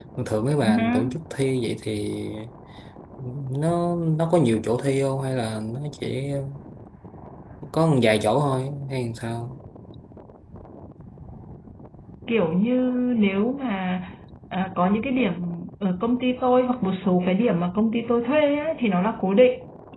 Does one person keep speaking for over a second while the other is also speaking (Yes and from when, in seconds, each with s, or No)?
No